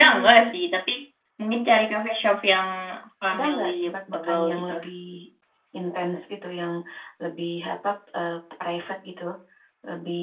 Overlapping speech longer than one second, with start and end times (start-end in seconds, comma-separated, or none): 3.3-4.7